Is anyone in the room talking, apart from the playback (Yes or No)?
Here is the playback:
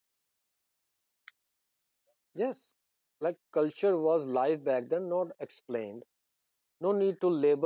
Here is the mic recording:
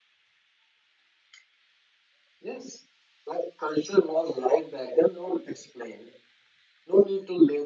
No